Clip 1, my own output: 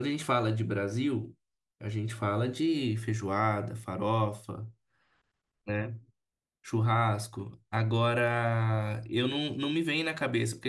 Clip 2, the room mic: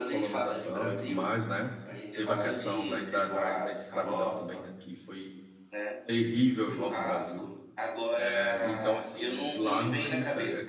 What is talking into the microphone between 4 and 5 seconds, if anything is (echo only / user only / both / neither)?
both